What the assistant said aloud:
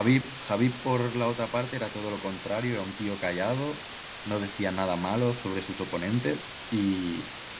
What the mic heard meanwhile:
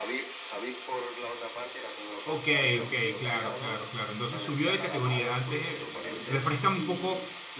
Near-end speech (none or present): present